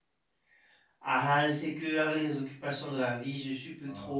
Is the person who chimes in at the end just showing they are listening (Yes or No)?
Yes